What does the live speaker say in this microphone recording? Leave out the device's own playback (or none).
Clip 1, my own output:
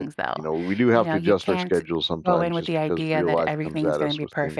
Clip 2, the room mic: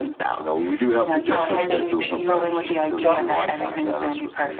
uh, for things that you you don't plan for,